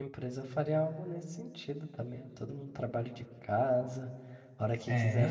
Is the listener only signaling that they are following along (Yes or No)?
Yes